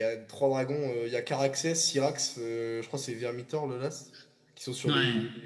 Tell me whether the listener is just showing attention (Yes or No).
Yes